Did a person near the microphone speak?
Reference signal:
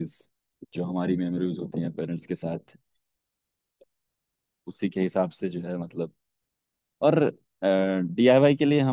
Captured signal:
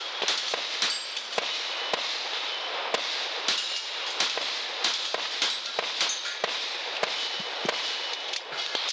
No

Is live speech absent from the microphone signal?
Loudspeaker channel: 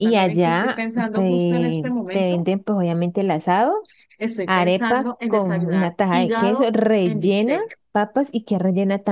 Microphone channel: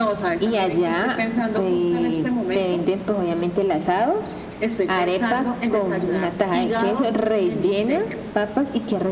Yes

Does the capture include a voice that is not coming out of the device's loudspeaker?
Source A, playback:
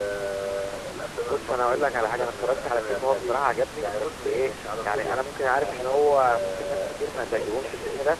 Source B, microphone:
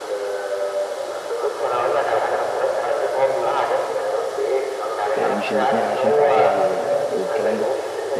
Yes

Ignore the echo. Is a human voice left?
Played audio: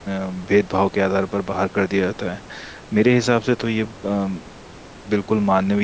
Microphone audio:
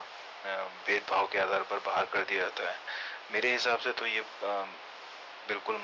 No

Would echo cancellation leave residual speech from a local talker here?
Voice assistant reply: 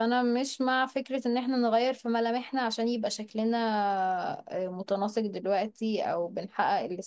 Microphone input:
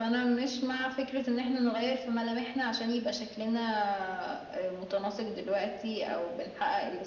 No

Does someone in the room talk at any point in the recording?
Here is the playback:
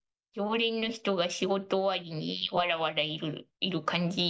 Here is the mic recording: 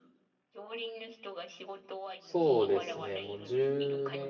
Yes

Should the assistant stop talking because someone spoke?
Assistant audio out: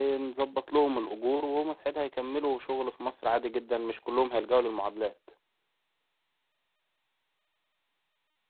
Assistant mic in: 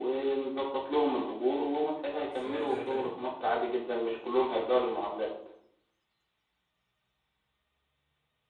Yes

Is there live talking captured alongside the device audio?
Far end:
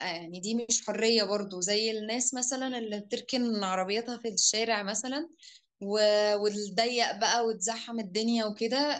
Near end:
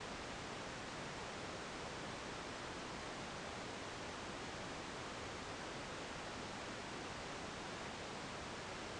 No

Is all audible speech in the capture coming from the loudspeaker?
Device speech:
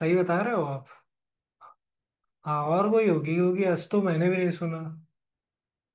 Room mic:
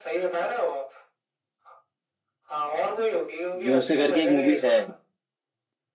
No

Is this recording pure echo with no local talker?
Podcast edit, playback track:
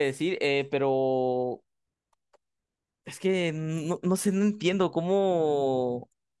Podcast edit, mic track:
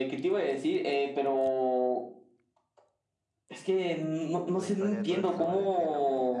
No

